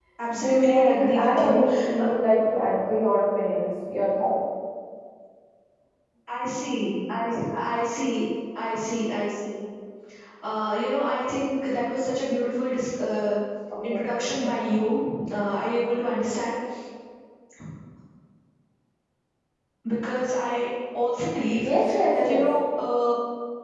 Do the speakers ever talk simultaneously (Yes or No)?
Yes